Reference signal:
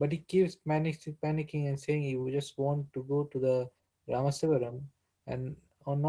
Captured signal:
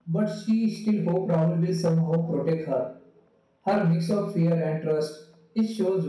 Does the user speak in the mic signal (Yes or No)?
Yes